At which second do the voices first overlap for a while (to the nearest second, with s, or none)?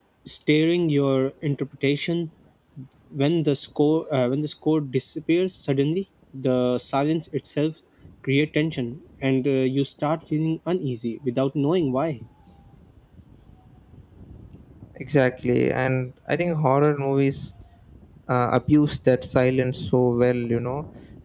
none